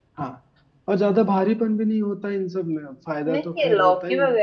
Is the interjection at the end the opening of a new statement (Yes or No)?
Yes